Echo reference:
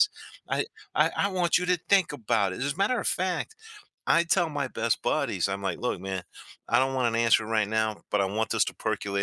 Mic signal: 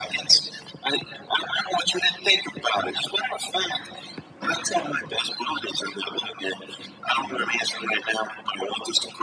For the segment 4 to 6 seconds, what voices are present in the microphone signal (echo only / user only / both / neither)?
echo only